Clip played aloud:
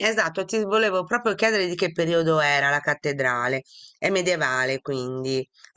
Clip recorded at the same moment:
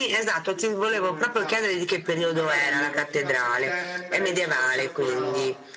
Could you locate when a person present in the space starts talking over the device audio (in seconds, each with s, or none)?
0.5 s